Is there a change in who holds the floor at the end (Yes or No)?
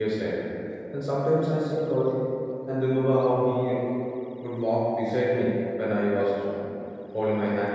No